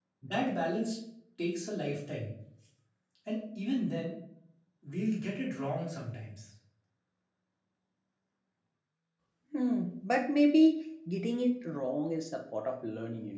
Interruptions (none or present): none